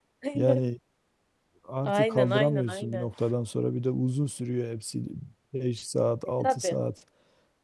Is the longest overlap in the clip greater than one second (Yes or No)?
Yes